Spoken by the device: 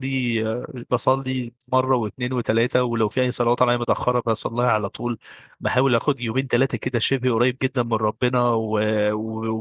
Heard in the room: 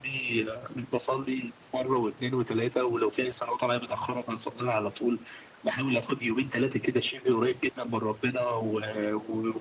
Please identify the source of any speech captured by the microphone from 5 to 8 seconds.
echo only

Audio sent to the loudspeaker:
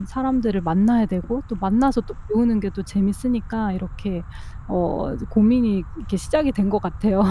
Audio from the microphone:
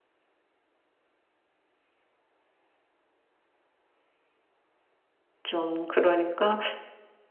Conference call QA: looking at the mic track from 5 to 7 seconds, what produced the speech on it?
user only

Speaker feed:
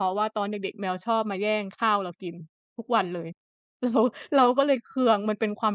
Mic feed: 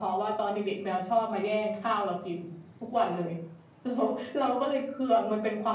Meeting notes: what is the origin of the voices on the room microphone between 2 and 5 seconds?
echo only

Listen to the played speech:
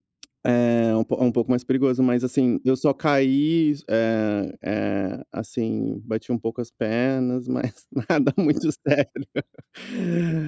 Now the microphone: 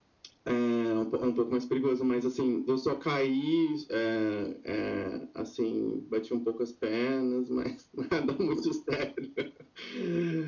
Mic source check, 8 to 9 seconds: echo only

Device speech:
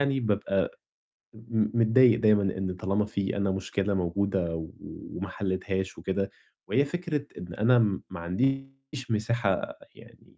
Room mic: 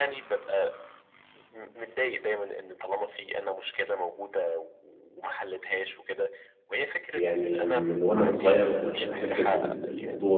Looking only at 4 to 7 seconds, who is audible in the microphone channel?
echo only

